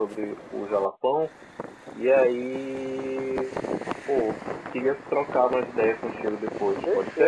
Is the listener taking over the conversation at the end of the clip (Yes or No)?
Yes